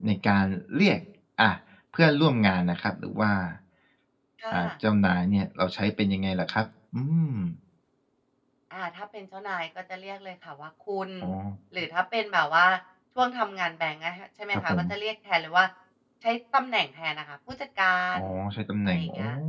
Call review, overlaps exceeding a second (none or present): none